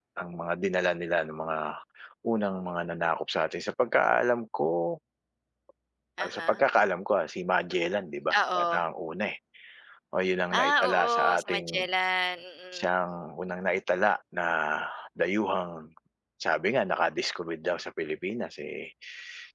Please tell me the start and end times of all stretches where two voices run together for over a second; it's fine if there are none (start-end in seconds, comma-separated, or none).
10.6-11.8